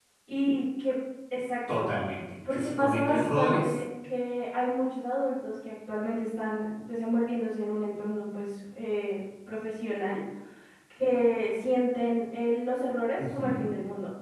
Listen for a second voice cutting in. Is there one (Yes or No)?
Yes